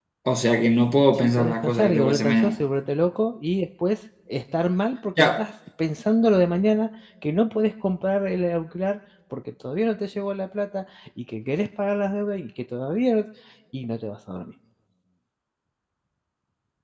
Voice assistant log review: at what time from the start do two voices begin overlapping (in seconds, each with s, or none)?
1.1 s